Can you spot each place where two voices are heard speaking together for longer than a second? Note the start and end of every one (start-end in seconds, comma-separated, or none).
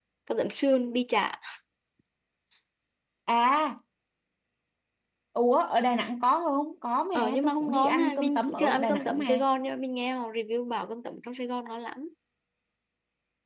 7.1-9.4